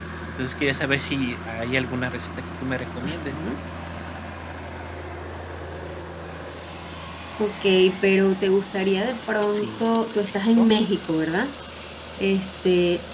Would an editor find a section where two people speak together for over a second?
Yes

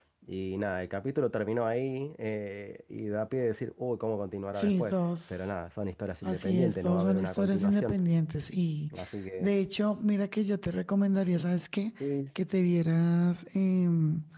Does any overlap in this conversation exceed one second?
Yes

